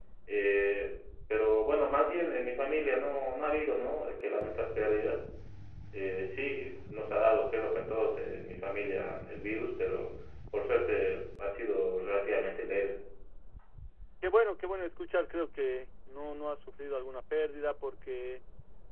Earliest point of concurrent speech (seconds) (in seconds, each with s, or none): none